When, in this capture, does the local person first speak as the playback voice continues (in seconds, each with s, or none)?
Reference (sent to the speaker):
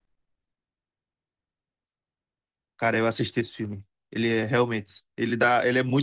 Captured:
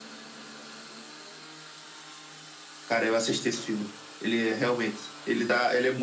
none